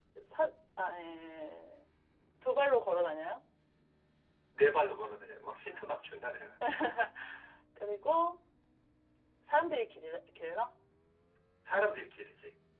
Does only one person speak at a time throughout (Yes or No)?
Yes